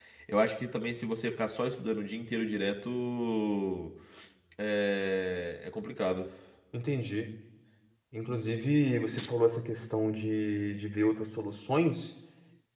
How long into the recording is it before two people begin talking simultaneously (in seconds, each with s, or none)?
none